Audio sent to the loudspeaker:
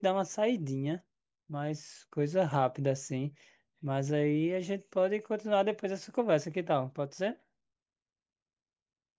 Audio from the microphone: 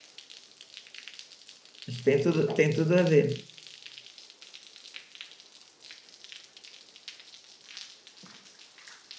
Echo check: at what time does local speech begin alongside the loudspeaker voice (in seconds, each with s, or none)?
1.9 s